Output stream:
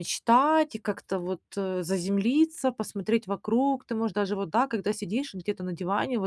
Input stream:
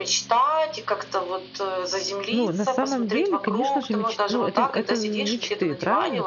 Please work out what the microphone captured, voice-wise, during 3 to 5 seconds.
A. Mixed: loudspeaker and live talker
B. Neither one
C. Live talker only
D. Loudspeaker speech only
A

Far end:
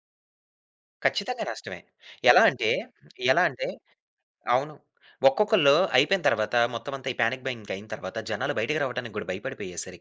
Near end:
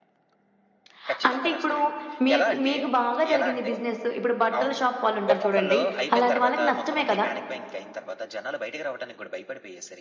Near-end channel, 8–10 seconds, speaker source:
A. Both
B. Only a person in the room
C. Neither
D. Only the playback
D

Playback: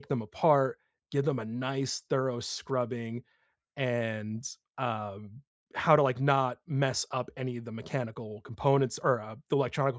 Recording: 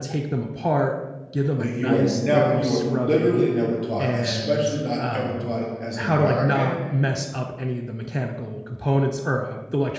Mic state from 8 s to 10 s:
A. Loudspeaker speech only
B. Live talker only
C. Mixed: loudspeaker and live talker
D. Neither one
A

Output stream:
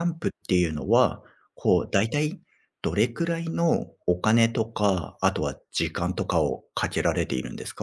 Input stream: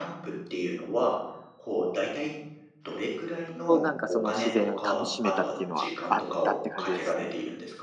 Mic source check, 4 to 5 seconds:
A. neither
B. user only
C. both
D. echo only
C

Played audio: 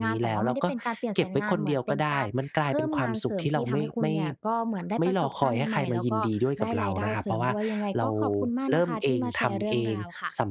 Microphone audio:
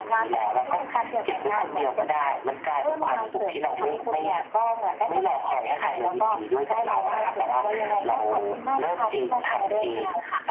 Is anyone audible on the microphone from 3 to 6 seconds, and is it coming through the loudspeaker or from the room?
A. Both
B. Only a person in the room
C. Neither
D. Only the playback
D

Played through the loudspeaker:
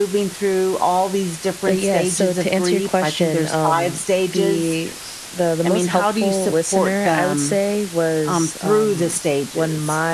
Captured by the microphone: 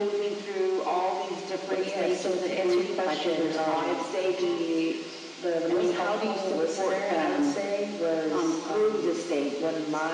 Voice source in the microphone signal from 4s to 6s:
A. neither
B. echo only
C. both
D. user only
B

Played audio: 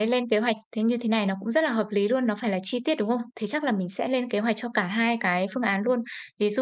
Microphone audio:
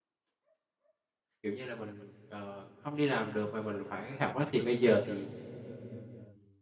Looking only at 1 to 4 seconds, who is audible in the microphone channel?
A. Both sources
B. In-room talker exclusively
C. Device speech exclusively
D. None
B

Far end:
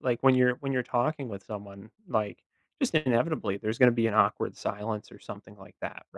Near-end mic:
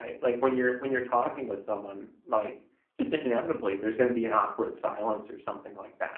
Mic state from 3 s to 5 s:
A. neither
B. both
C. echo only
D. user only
C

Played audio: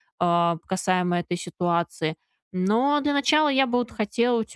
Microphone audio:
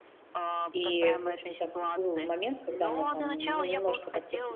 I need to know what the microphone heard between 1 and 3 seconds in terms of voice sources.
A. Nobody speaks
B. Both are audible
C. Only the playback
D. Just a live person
B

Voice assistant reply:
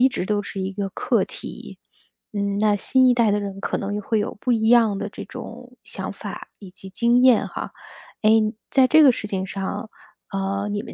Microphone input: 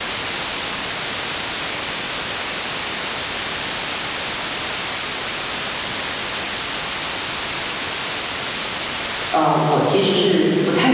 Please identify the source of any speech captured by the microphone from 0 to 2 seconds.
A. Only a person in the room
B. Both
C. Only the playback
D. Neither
D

